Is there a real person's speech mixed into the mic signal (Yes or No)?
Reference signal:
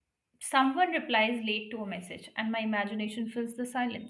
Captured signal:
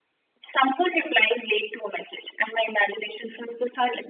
No